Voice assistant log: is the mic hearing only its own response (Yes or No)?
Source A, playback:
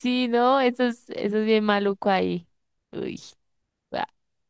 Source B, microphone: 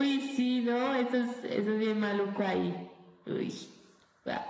Yes